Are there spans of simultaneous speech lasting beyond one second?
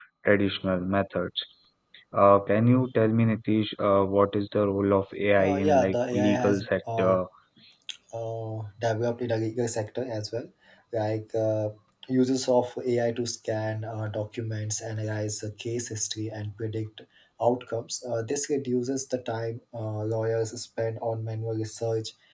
Yes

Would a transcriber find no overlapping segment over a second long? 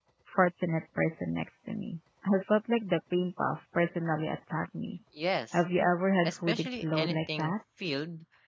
No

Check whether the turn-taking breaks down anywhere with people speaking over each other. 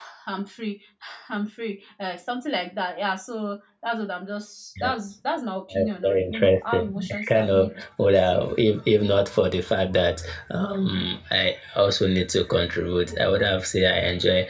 Yes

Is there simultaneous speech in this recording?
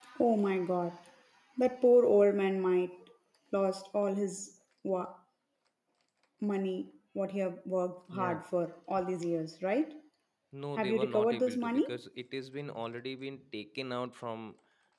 Yes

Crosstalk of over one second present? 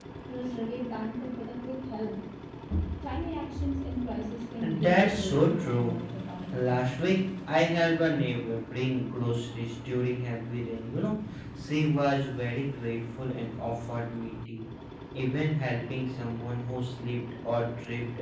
Yes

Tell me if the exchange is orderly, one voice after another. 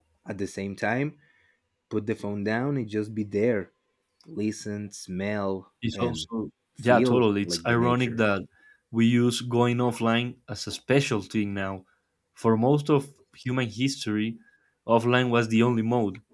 No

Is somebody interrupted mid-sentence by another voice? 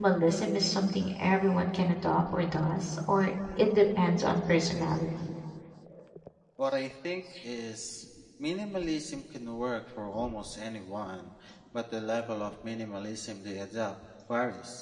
No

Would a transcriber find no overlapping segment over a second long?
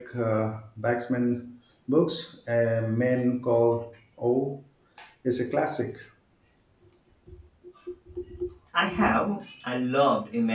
Yes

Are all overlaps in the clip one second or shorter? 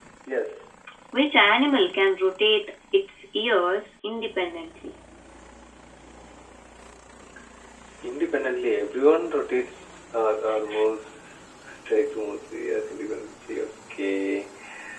Yes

